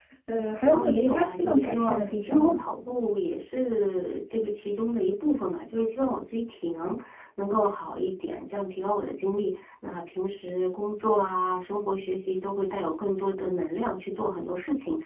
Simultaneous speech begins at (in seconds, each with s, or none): 0.7 s